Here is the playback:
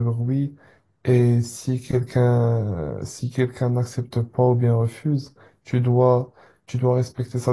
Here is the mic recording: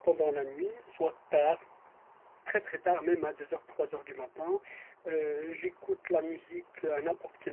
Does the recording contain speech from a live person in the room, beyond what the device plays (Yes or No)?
Yes